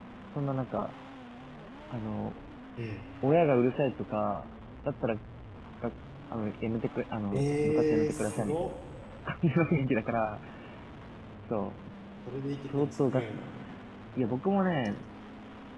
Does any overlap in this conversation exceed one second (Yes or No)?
Yes